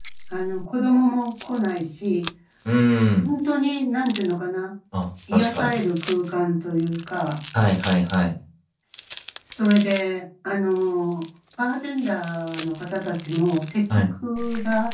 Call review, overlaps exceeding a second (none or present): none